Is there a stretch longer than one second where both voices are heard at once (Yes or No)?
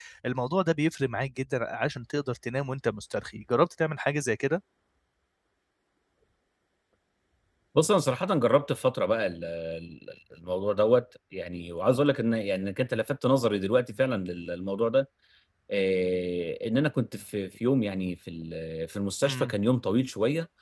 No